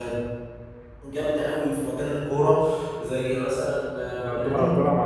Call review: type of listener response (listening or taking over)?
taking over